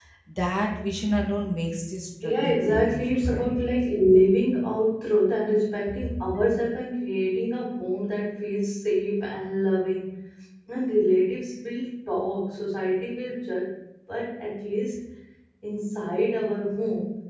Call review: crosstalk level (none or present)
present